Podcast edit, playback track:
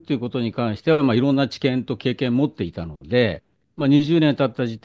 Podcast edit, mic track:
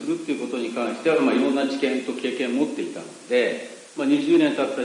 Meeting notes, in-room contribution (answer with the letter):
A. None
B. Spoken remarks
A